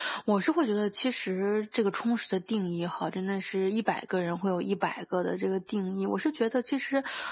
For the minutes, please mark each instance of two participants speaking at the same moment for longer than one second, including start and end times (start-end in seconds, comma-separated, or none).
none